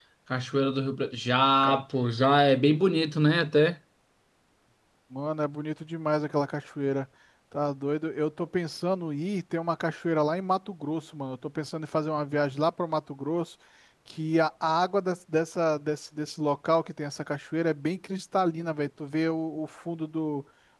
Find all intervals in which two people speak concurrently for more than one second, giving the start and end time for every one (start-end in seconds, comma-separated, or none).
none